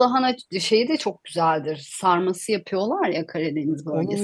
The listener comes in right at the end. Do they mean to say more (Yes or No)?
Yes